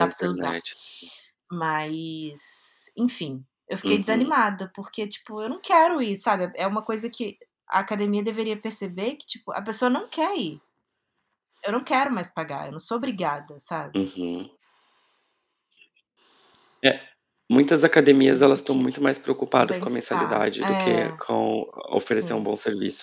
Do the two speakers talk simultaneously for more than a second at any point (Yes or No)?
Yes